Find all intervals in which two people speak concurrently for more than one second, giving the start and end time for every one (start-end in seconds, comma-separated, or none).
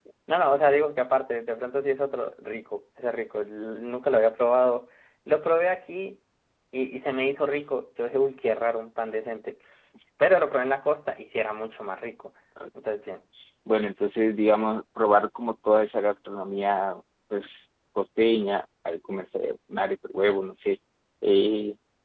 none